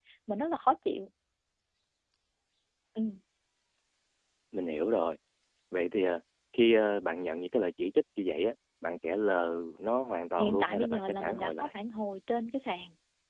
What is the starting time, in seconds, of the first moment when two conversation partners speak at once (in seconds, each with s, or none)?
10.4 s